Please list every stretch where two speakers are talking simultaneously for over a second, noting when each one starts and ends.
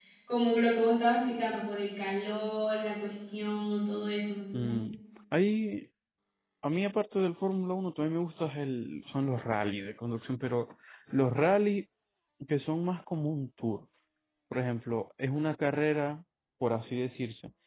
none

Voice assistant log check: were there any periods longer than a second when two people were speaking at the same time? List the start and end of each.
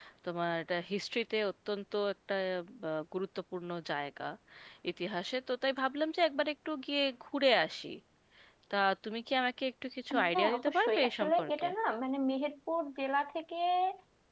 10.3-11.7

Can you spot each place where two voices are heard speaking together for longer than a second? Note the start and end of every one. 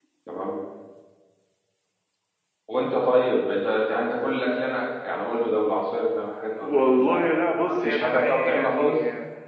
6.6-9.0

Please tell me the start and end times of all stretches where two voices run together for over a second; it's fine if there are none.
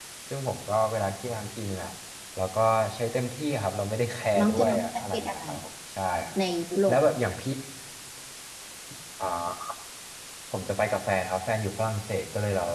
4.4-5.6

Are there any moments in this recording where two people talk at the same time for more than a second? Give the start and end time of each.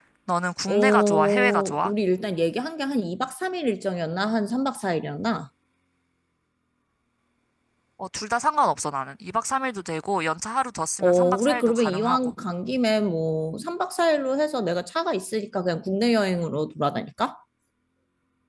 0.7-1.9, 11.0-12.3

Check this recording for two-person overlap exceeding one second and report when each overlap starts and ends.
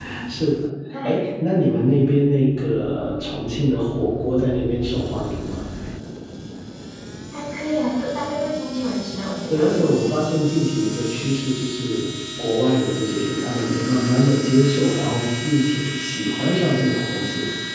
none

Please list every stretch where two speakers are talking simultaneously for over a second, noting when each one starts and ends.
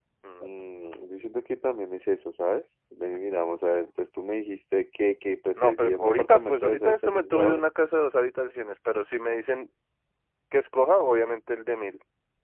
5.6-7.6

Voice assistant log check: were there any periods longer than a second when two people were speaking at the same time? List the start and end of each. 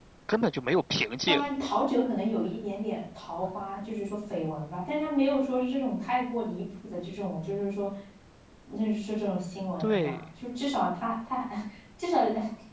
none

